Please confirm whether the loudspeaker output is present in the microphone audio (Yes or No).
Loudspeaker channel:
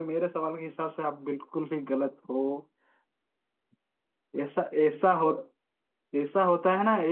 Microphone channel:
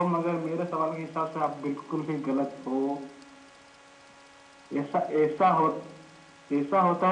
Yes